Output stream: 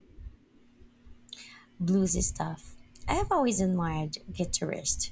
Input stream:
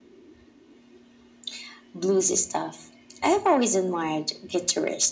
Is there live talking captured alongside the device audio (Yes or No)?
No